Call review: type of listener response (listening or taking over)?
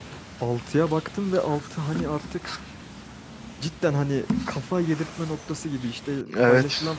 listening